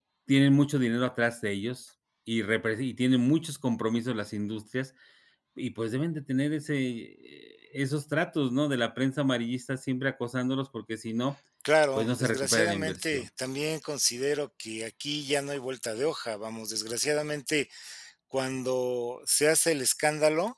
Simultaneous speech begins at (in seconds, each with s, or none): 12.0 s